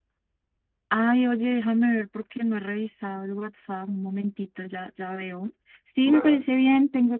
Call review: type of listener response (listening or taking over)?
listening